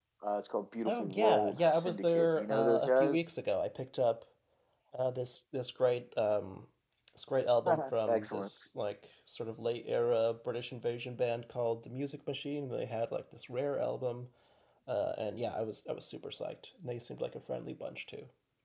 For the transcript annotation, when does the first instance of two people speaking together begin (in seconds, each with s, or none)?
0.8 s